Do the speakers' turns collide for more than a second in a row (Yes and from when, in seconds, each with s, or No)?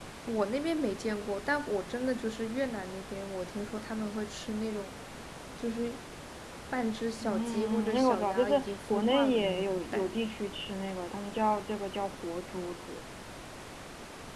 Yes, from 7.2 s